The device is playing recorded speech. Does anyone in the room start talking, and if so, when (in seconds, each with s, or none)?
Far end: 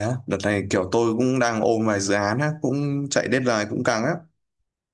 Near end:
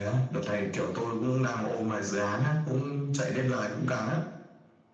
none